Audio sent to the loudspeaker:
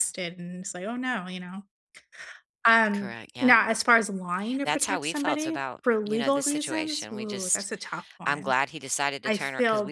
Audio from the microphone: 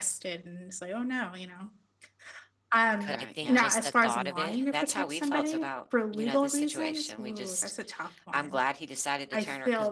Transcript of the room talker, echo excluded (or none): but I think just the thought of it